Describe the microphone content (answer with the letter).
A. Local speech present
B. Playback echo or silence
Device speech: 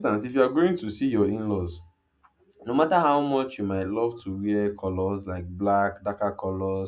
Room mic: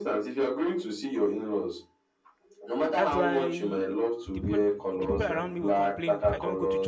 A